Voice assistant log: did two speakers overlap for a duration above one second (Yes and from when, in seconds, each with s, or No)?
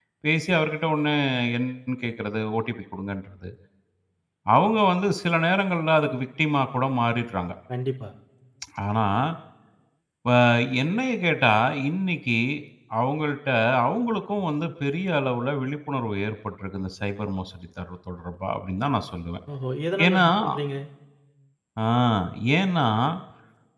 No